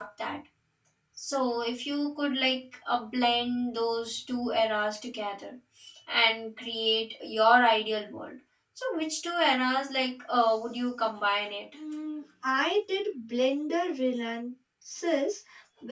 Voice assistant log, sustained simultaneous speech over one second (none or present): none